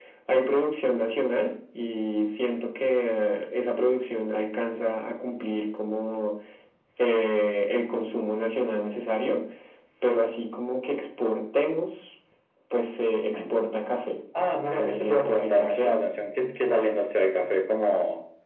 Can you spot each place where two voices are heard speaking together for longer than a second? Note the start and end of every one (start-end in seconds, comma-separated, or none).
14.7-15.9